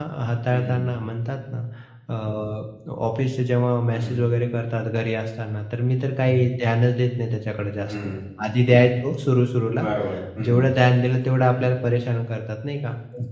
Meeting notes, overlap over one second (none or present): none